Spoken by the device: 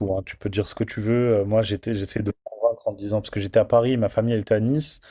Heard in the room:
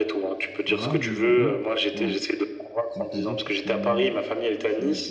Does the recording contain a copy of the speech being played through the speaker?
Yes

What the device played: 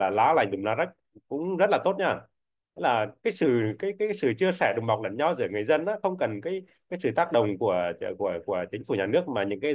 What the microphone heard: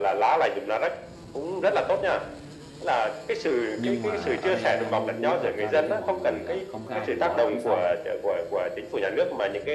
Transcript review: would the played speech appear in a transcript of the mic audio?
Yes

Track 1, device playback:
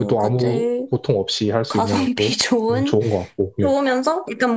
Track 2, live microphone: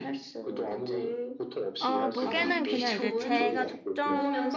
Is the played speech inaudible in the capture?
No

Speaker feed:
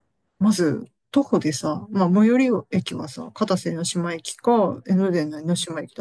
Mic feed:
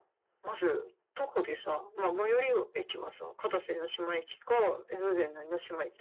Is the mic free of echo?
No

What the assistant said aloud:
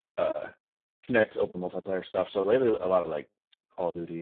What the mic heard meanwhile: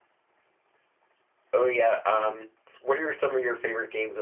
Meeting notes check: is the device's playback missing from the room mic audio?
Yes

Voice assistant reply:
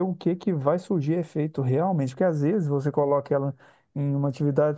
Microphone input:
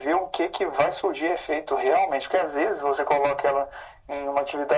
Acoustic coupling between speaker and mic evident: Yes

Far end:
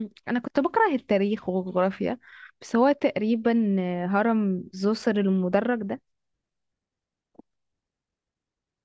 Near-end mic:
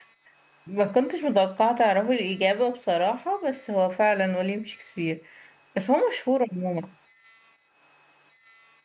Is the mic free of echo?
Yes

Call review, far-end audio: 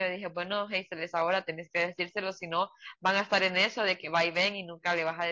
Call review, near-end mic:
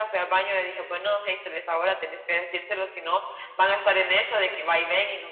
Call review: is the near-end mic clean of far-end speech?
No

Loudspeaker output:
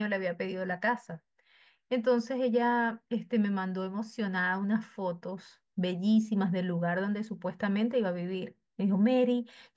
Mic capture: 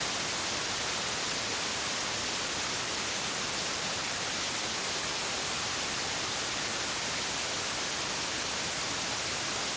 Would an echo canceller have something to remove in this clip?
No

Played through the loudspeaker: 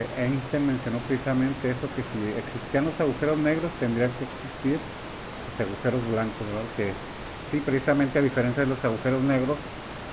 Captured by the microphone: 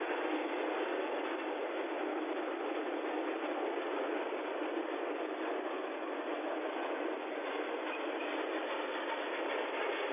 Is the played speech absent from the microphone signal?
Yes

